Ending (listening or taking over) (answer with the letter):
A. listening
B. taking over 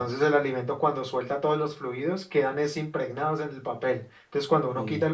A